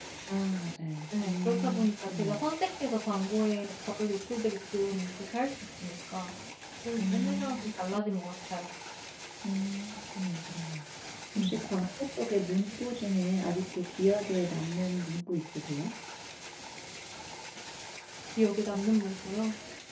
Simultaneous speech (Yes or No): Yes